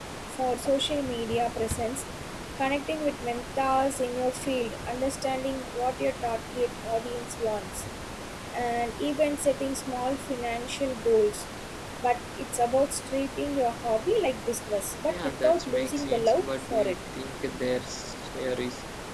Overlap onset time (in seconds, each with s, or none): 15.1 s